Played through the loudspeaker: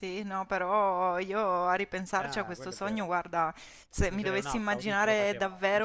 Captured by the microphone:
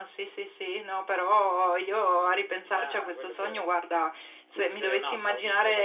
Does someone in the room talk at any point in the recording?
No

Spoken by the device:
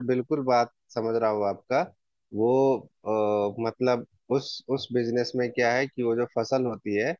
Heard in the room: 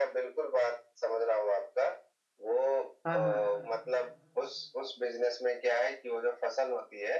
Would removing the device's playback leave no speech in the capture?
No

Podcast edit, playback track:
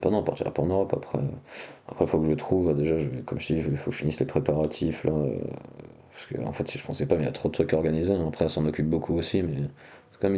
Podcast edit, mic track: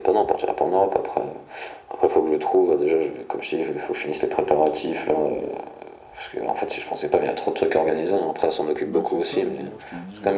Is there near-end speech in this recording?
Yes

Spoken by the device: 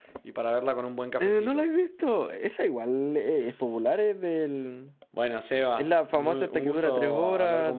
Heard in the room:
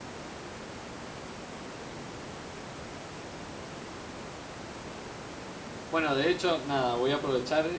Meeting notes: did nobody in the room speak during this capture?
No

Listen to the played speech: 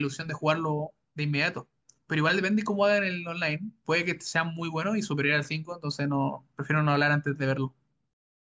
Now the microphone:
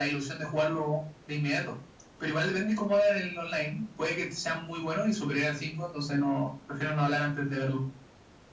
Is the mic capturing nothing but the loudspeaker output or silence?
Yes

